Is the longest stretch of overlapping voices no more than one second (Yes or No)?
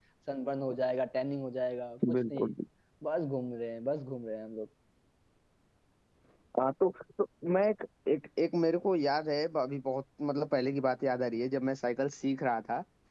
Yes